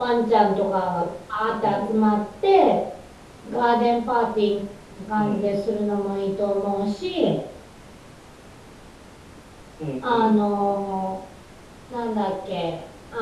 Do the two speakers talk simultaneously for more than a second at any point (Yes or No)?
No